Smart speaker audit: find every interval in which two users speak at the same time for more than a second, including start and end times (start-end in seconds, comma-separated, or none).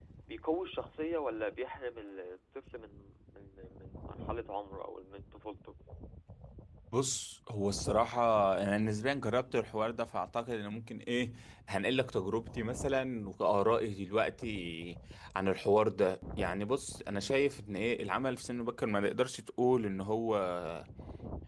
none